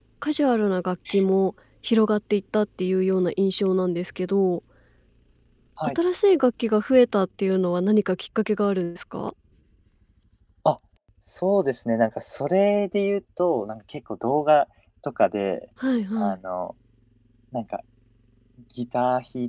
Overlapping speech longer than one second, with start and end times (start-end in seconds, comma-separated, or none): none